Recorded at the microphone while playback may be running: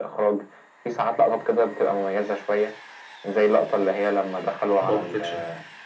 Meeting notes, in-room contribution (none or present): present